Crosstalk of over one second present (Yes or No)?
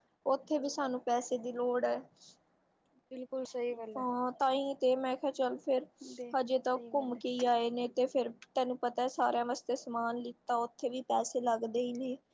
No